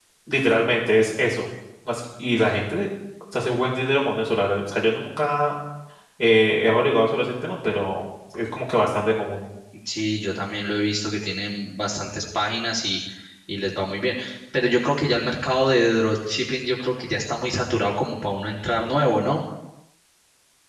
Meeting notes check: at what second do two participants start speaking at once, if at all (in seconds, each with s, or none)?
none